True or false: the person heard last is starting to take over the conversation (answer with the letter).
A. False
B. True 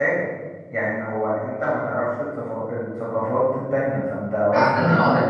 B